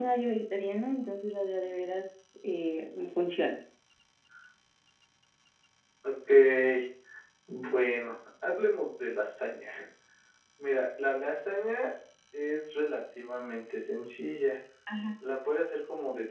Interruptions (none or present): none